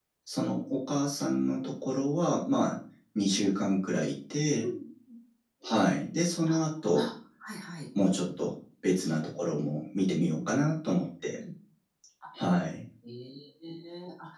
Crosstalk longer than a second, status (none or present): none